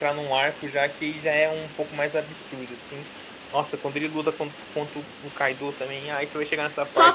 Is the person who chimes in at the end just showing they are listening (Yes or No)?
No